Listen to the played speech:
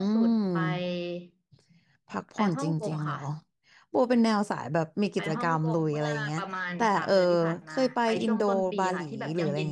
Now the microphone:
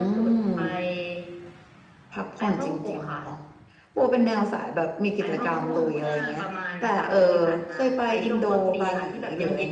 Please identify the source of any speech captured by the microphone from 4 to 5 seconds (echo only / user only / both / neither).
echo only